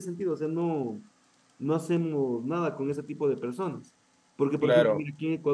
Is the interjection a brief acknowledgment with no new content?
Yes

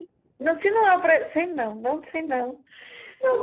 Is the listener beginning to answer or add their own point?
Yes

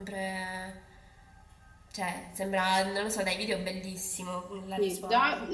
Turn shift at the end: Yes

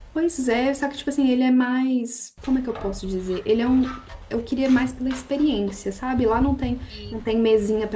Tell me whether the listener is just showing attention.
Yes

